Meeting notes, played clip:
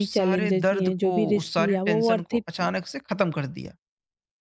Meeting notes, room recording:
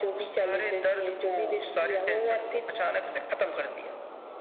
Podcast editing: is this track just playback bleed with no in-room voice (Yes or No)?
Yes